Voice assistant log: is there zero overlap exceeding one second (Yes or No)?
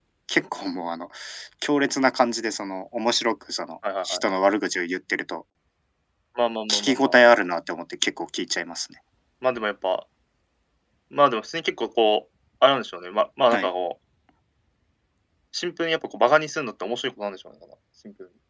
Yes